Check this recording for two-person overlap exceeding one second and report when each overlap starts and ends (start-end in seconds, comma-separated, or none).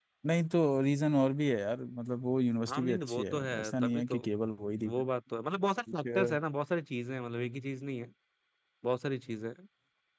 2.7-4.2